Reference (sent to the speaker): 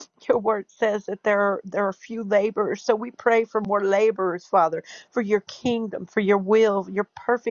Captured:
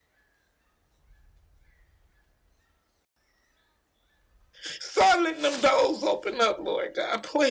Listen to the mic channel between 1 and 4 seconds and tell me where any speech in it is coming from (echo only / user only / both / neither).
neither